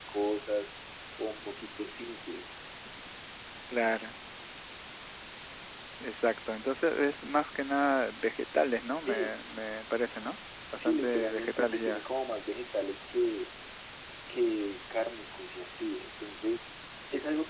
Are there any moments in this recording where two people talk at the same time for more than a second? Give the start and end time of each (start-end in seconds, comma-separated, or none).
10.8-12.0